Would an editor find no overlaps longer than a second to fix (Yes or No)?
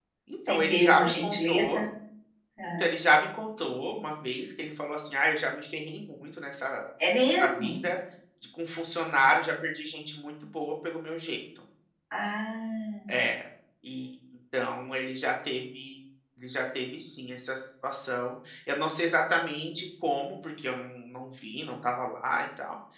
No